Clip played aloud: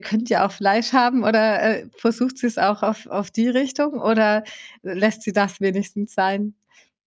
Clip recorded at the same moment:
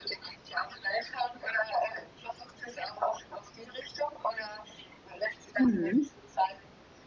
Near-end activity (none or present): present